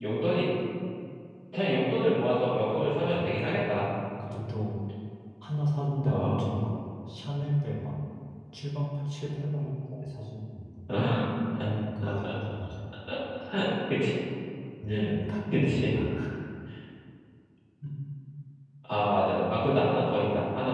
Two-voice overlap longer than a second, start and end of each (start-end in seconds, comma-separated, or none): none